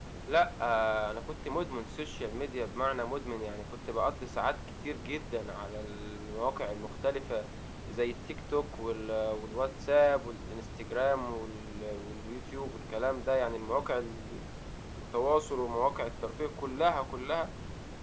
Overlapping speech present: No

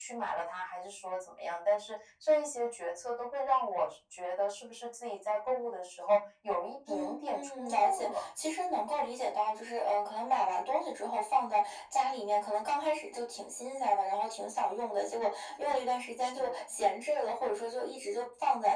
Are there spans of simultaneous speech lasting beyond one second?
Yes, from 6.9 s

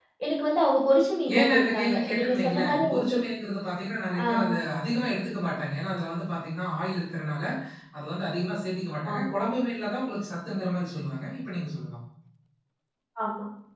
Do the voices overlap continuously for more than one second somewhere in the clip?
Yes, from 1.4 s

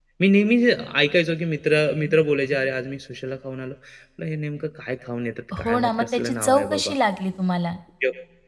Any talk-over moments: Yes, from 5.5 s

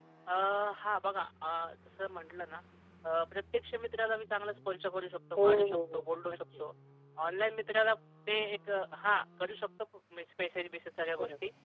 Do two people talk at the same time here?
Yes, from 5.4 s

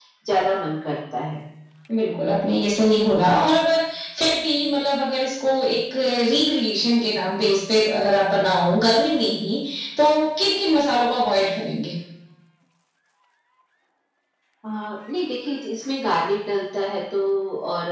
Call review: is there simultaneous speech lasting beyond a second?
No

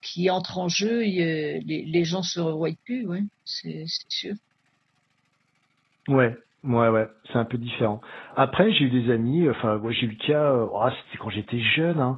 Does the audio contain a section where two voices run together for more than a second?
No

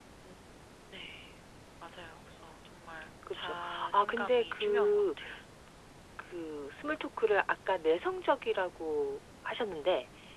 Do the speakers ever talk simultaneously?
Yes, from 3.3 s

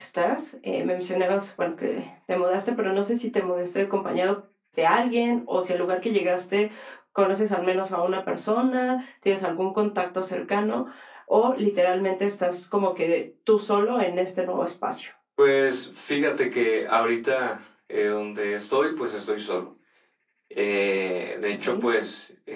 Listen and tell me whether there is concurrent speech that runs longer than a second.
No

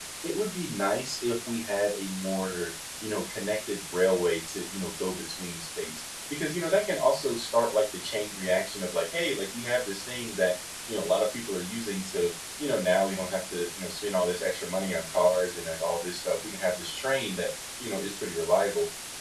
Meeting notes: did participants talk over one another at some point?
No

